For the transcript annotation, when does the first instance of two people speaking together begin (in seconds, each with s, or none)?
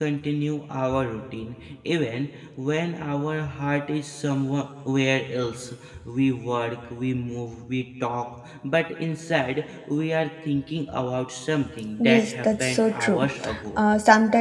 12.0 s